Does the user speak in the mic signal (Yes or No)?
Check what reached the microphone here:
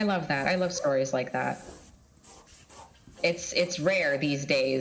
No